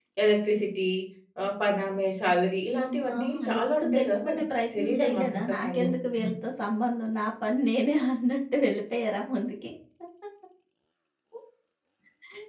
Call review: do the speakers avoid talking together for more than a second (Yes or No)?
No